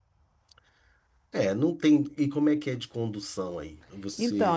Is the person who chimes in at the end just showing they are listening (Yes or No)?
No